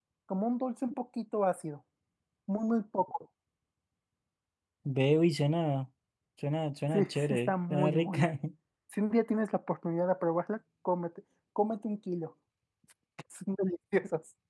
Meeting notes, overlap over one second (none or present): present